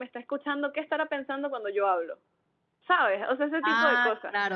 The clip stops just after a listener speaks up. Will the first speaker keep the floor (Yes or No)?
No